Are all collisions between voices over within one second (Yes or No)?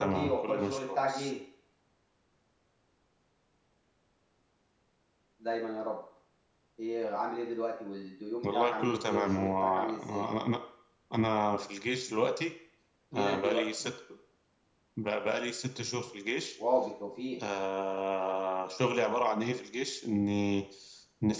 No